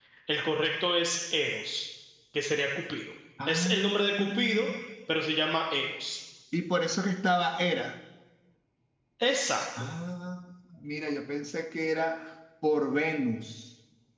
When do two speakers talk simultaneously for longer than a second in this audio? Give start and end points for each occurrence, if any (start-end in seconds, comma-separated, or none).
3.5-4.7